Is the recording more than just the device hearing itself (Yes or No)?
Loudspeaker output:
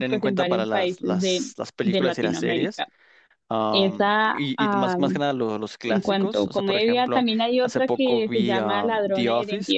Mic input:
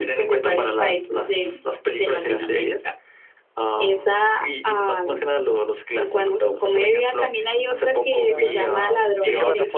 Yes